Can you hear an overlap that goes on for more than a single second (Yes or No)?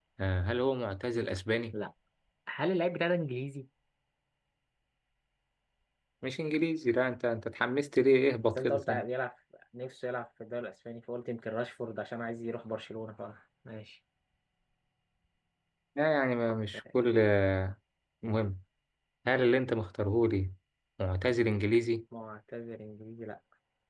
No